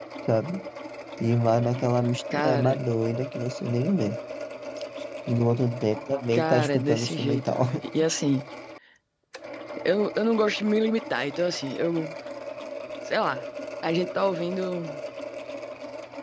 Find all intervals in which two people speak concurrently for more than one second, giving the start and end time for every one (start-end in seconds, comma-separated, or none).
6.3-7.6